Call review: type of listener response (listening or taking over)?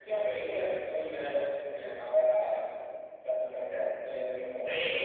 taking over